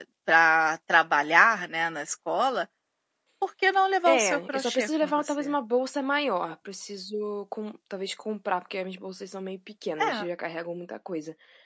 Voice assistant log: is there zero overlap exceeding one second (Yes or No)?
No